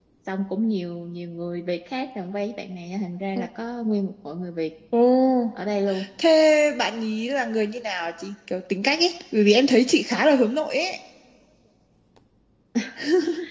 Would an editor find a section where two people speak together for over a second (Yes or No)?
No